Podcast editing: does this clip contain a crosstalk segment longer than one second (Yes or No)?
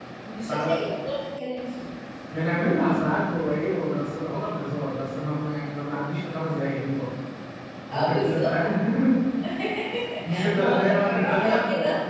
Yes